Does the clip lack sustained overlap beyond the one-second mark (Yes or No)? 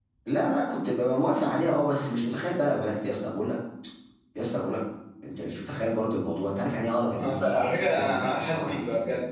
No